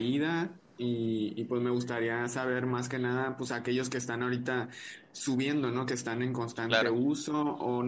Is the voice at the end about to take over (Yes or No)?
No